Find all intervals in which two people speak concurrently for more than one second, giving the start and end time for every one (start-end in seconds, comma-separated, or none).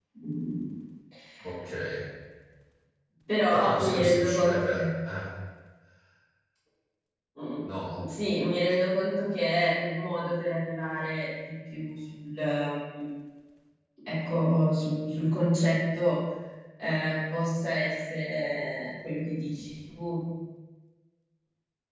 3.5-4.9